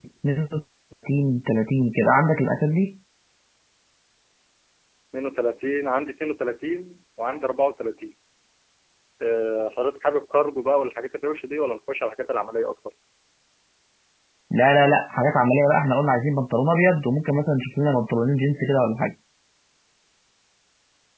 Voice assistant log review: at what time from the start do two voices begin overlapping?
none

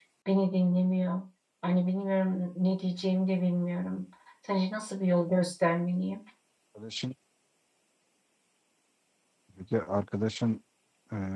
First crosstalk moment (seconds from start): none

